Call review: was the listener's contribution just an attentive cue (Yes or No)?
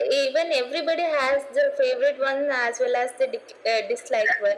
Yes